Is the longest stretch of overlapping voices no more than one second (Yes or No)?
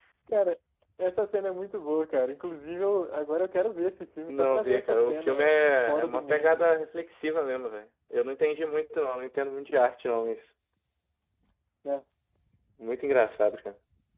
No